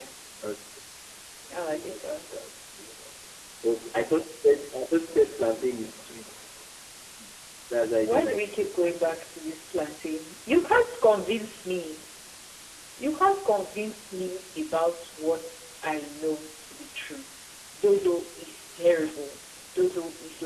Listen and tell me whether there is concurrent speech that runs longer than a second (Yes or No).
Yes